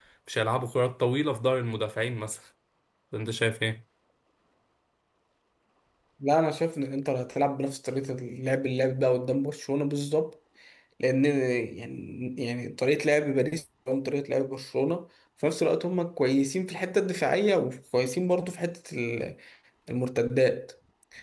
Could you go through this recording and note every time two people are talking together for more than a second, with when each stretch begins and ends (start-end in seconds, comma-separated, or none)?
none